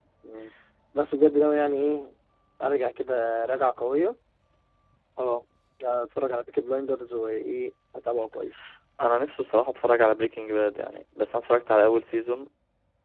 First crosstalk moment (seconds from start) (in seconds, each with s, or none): none